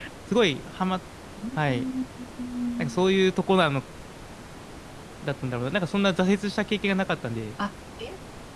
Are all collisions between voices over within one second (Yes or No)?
Yes